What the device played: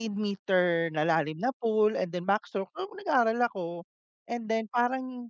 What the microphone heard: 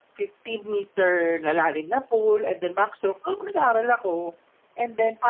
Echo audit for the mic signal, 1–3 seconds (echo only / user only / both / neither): echo only